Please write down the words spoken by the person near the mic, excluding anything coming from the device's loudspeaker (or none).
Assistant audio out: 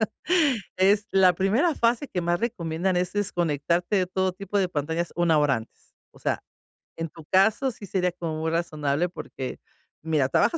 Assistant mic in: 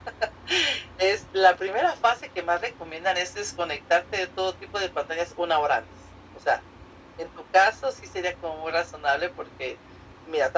none